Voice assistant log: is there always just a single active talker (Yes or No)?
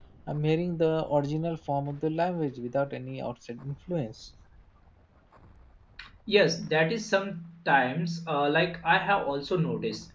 Yes